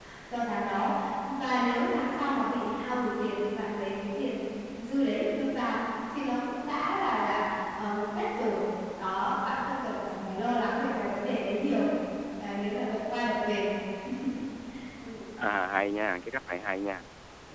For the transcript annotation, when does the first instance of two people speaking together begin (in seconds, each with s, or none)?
none